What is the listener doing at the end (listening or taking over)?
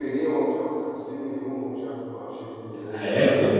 taking over